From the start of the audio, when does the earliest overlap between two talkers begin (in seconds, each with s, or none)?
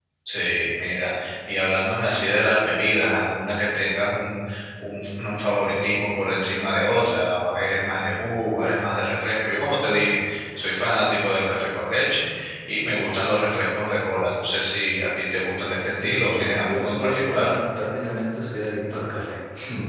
16.0 s